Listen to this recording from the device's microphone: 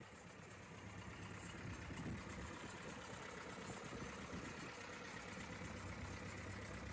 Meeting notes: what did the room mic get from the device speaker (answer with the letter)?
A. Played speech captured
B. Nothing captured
B